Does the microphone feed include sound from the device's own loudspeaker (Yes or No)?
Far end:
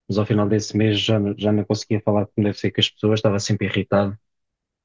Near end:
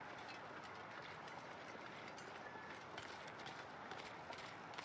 No